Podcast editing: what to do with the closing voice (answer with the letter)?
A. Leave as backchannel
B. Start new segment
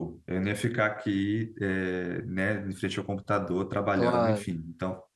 A